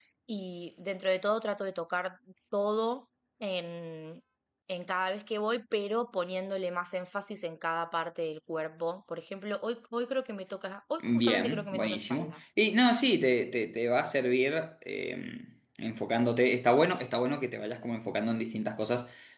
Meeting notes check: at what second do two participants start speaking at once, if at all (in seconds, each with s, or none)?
11.0 s